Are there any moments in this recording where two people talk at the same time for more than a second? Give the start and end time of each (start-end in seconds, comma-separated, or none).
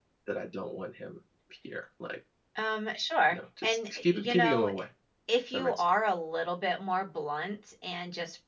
3.3-4.7